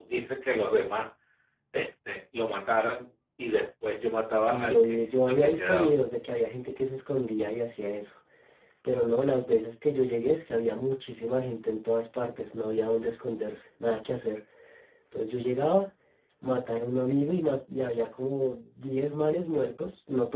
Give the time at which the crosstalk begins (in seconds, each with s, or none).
4.4 s